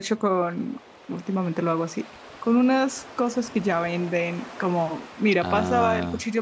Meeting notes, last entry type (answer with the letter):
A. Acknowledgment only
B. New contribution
A